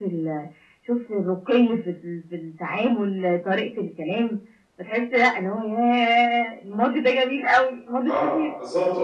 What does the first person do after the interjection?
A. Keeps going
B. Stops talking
B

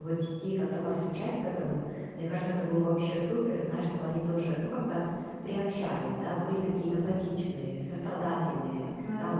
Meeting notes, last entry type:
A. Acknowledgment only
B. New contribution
B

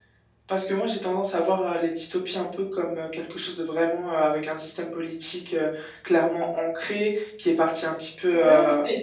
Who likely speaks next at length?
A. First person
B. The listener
B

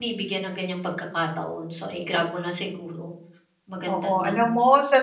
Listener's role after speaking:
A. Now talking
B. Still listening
A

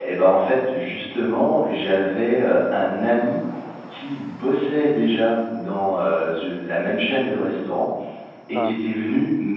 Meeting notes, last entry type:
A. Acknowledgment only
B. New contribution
A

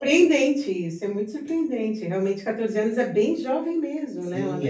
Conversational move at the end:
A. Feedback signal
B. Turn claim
B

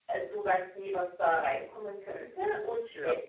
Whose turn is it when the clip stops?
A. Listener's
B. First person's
B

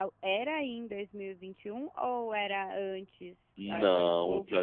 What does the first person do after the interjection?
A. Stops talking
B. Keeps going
A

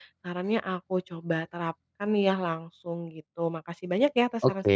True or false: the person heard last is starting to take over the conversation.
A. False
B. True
B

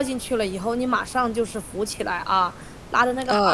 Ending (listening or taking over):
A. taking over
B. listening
B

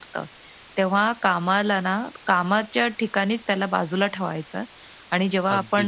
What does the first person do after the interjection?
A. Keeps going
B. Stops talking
A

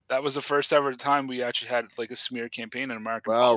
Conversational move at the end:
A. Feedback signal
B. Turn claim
B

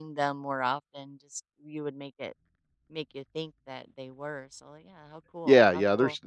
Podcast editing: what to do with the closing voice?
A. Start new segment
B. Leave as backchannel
A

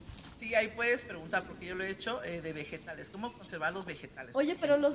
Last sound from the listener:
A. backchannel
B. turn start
B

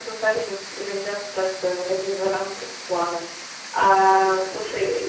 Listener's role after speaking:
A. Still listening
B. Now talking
A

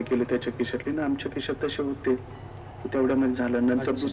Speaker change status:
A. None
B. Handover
A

